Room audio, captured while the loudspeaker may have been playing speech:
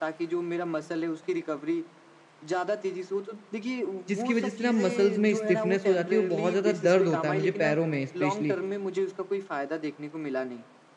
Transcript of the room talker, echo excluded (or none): जिसकी वज़ह से ना मसल्स में स्टिफनेस हो जाती है और बहुत ज़्यादा दर्द होता है मुझे पैरों में स्पेशली